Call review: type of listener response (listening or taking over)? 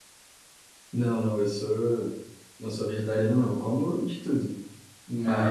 listening